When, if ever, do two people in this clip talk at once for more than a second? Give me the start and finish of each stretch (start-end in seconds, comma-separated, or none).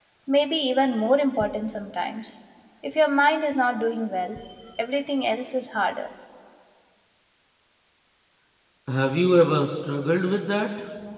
none